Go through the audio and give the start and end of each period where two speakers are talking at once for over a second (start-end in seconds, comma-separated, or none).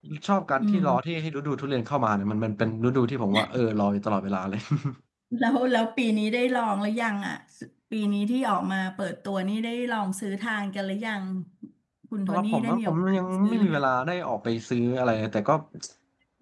12.3-13.8